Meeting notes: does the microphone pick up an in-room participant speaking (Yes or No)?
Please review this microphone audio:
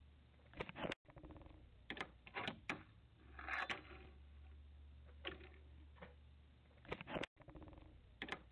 No